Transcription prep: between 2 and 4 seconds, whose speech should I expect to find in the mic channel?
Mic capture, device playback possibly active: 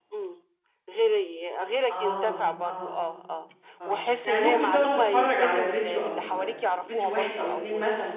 both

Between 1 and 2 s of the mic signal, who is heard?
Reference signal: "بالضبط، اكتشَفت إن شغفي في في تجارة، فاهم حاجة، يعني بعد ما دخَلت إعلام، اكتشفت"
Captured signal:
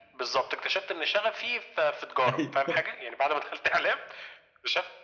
echo only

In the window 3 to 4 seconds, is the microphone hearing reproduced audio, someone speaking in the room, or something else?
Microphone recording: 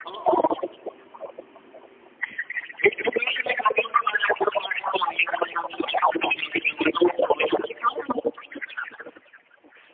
echo only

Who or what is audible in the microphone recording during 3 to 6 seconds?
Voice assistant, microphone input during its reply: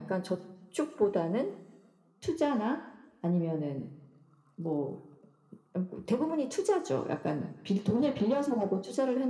echo only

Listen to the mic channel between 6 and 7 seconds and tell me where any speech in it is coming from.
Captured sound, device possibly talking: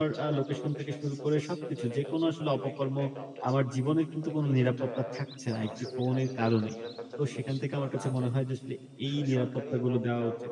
both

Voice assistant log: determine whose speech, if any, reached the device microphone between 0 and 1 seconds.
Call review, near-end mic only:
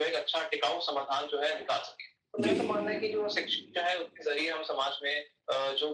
echo only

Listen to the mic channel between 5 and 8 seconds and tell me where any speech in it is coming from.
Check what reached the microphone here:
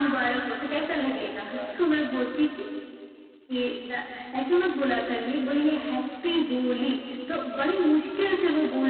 echo only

